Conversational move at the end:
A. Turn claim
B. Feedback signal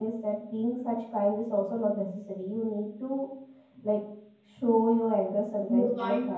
A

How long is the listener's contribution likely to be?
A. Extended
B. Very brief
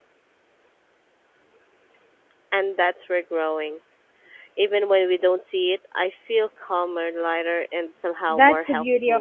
A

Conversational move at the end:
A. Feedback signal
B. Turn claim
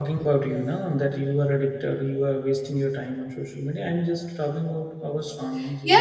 B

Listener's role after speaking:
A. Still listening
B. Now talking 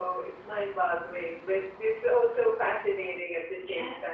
B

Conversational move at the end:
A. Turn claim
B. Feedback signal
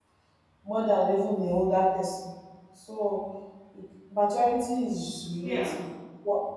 B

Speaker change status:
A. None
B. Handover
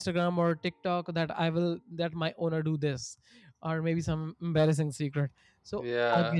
B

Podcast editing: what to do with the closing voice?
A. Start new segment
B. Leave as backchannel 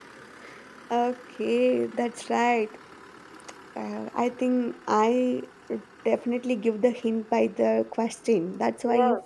A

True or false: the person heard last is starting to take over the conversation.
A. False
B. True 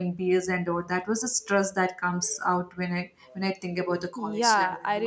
B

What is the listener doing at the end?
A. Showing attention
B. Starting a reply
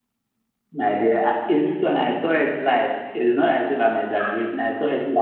A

